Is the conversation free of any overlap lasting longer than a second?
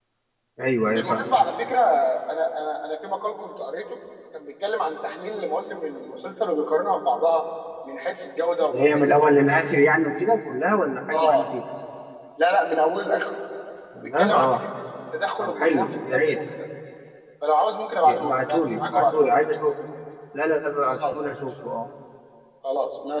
No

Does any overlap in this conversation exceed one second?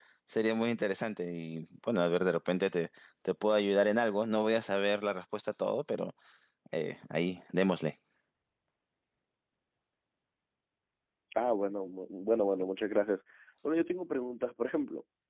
No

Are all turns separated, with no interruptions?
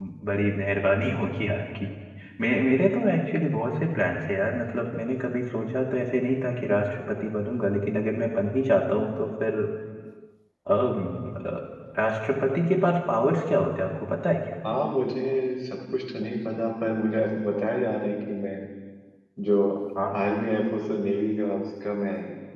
Yes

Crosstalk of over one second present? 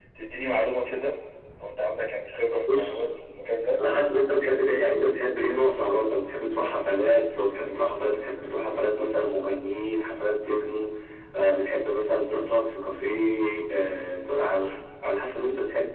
No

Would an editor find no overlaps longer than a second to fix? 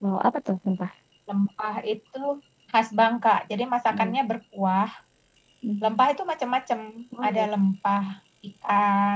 Yes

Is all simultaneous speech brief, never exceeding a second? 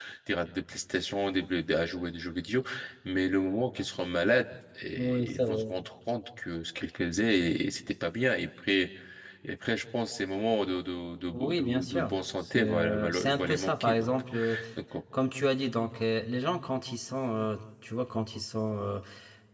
No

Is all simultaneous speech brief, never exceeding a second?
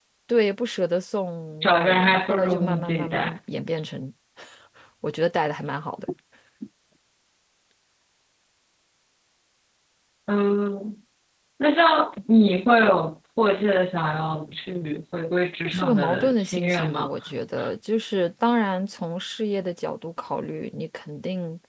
No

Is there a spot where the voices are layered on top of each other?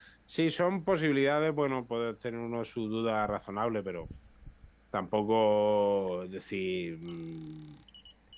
No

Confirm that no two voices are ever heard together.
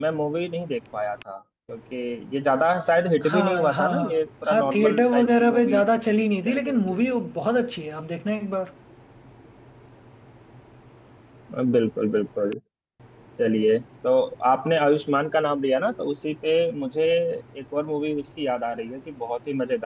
No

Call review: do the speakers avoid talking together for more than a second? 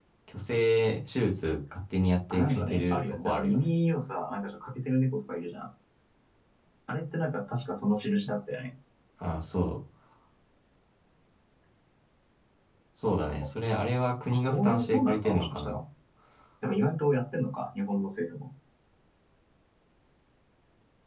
No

